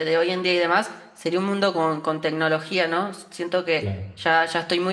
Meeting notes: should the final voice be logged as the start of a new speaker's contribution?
No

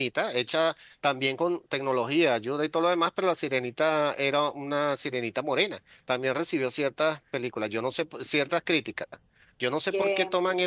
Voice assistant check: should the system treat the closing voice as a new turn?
No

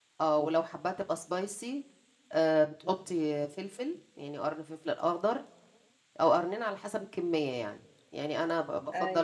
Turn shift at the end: No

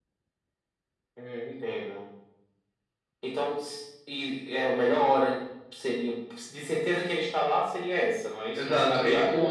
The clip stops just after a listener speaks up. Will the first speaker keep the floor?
No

